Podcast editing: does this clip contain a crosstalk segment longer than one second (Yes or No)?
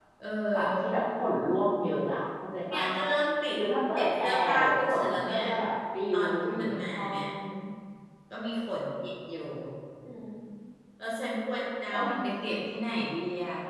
Yes